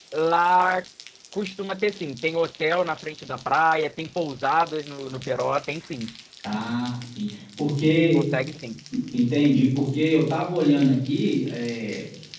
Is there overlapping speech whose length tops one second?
No

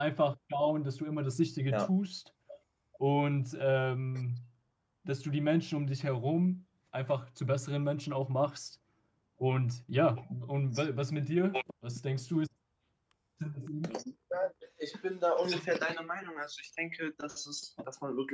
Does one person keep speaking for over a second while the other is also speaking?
No

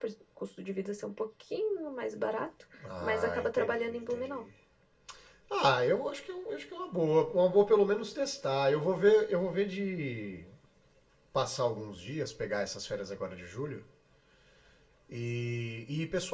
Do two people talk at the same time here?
Yes, from 2.8 s

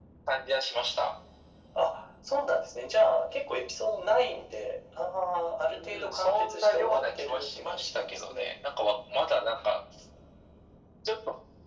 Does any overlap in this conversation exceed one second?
Yes, from 5.7 s

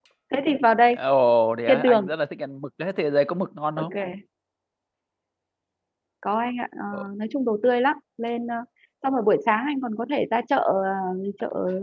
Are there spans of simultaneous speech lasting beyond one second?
No

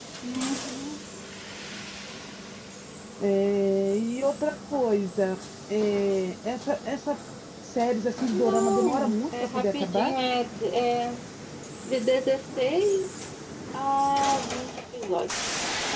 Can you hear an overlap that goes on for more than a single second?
Yes, from 8.3 s

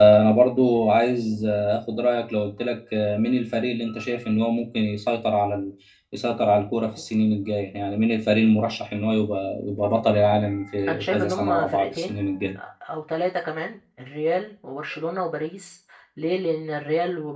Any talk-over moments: Yes, from 10.9 s

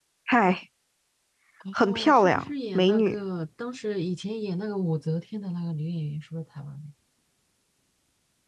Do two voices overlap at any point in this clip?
Yes, from 1.8 s

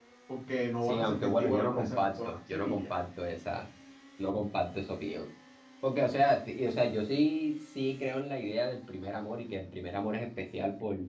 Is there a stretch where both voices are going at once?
Yes, from 0.8 s

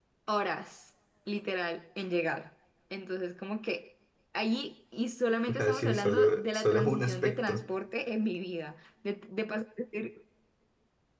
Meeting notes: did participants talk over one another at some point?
Yes, from 5.5 s

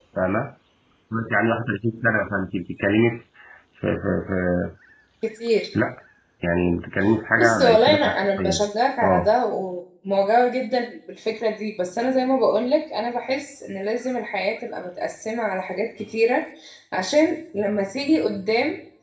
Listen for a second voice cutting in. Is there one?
Yes, from 7.4 s

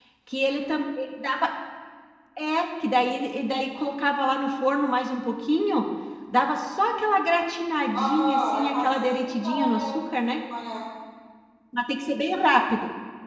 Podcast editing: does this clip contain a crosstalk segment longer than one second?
Yes, from 7.9 s

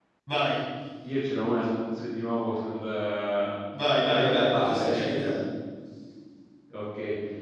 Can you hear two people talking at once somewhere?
Yes, from 4.0 s

